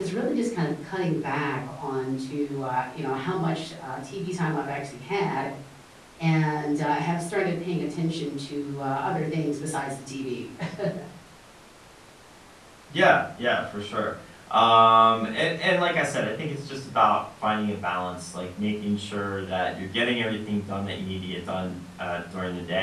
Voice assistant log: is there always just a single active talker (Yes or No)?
Yes